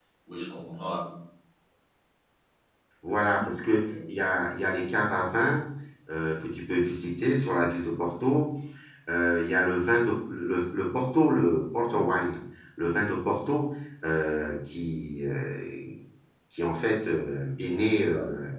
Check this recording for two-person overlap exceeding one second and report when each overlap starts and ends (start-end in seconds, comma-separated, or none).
none